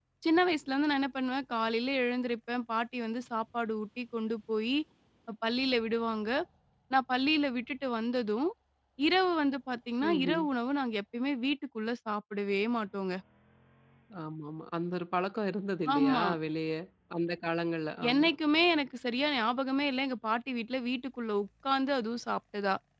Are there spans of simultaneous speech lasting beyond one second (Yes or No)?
No